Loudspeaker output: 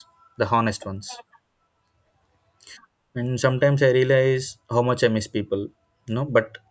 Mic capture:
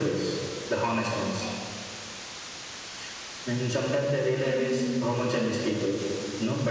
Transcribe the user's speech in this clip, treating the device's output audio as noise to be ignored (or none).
Mm,